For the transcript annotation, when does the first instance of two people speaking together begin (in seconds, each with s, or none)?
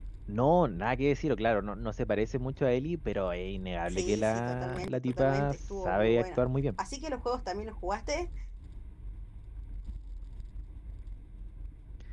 3.9 s